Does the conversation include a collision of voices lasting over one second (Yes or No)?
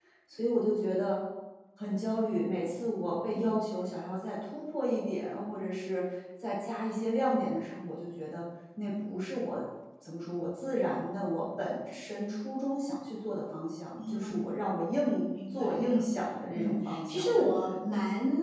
Yes